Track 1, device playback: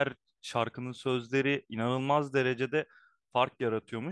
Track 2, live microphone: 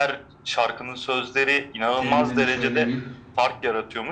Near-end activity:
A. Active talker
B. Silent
A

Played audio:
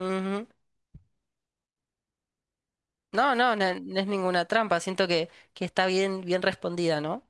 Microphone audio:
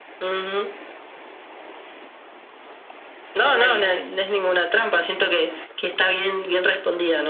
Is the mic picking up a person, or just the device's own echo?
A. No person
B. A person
B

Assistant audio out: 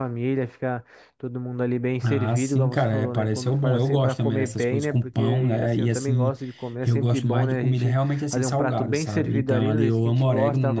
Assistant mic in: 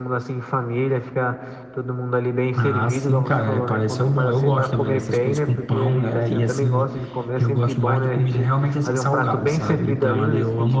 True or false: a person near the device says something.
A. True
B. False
B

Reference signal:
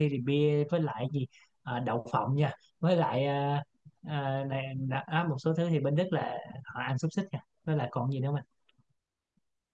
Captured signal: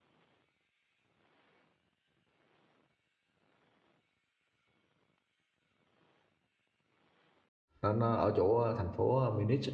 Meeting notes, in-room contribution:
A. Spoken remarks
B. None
A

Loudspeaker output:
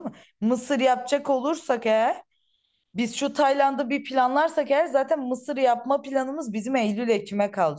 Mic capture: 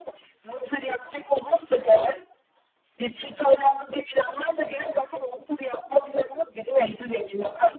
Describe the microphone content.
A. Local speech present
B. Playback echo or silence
B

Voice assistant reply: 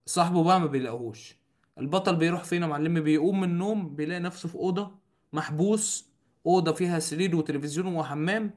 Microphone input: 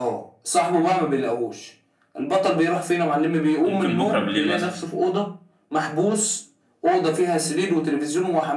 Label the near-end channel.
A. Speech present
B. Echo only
A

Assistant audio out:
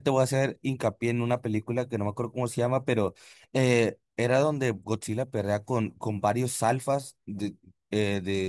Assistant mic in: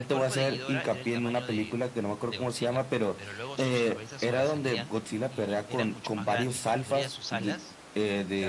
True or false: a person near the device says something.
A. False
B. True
B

